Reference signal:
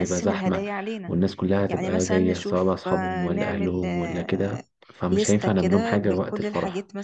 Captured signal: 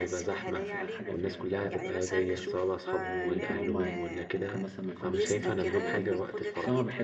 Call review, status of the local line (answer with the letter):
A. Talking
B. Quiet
A